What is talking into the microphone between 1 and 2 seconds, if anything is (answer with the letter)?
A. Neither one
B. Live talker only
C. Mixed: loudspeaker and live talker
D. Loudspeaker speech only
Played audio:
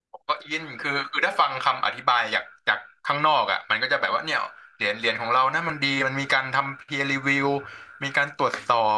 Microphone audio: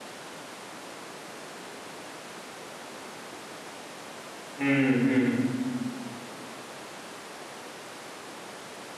A